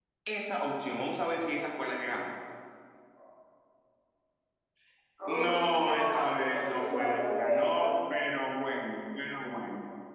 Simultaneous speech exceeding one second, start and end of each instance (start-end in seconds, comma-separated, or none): 5.3-7.9